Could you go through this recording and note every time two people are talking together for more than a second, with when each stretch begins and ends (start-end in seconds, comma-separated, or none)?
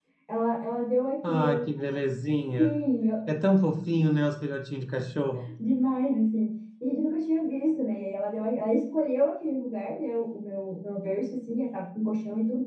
none